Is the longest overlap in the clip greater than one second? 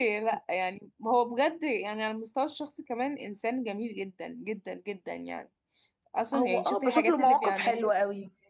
Yes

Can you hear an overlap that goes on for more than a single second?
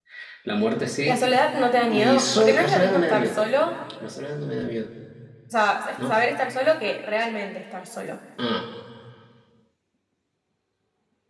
Yes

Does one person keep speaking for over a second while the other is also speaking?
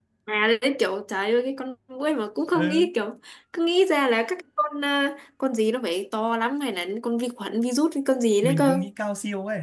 No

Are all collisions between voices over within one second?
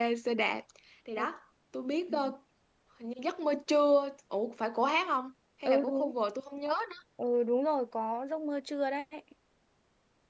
Yes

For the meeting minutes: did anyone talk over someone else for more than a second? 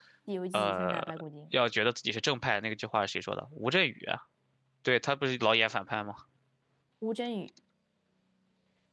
No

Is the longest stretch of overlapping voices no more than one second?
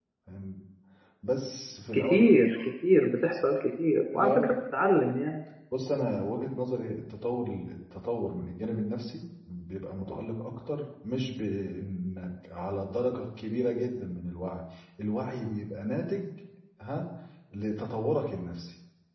Yes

